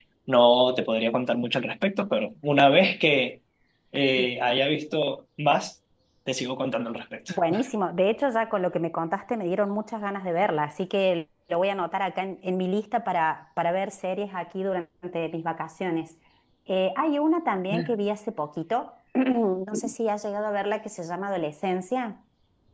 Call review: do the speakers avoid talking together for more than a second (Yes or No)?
Yes